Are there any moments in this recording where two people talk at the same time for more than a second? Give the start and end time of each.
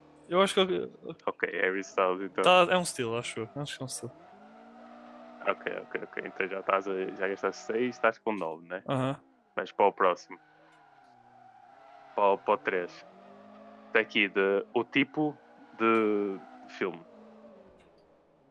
none

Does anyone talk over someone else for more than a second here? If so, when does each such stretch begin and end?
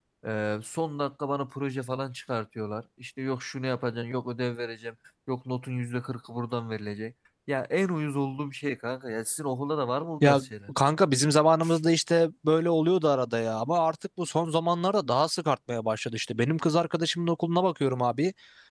none

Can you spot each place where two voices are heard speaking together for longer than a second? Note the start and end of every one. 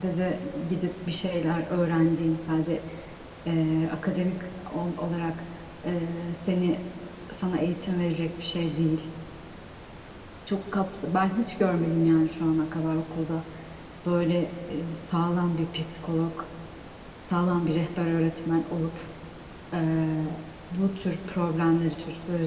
none

